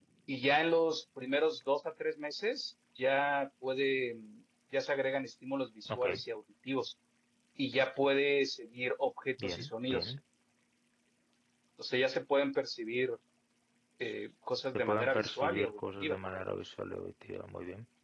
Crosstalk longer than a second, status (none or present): present